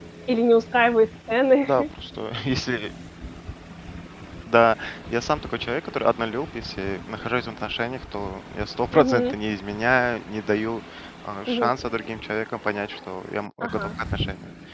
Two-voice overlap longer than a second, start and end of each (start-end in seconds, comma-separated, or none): none